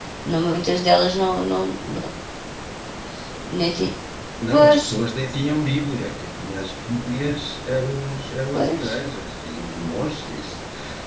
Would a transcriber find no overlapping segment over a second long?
Yes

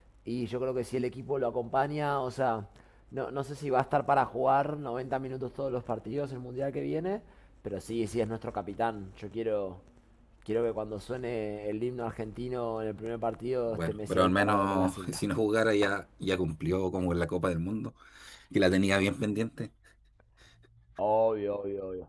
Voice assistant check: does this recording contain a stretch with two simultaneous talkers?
Yes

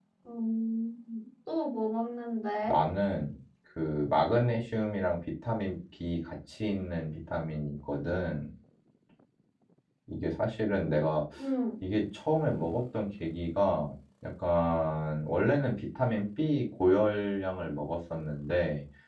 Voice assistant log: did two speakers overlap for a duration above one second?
No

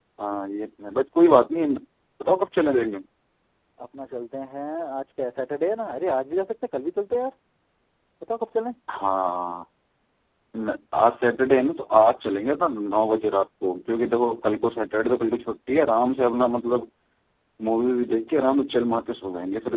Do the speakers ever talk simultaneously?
No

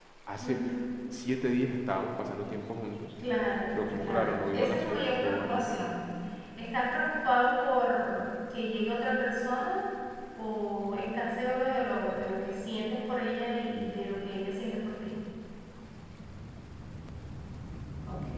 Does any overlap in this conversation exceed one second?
Yes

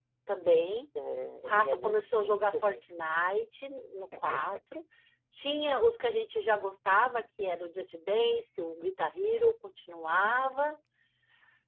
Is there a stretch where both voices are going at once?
Yes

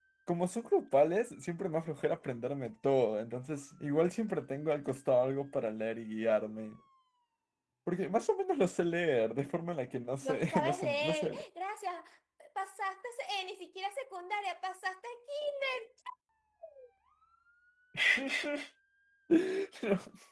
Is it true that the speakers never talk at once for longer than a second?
No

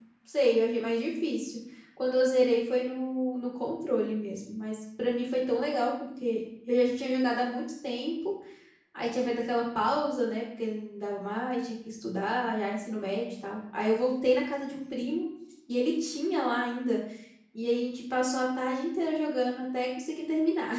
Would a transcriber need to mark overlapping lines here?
No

